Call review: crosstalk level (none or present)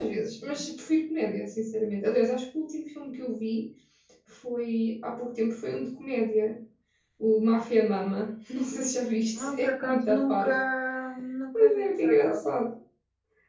present